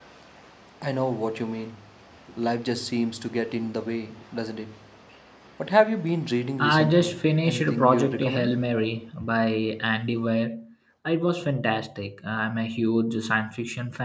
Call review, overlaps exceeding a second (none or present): present